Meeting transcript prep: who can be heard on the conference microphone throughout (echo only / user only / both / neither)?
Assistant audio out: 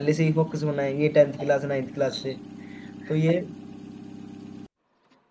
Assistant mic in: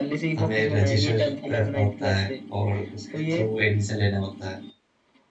both